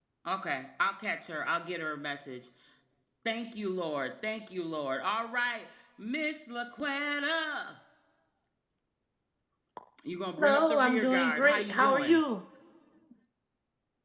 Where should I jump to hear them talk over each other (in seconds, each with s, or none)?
10.4 s